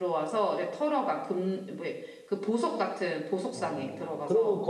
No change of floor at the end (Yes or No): No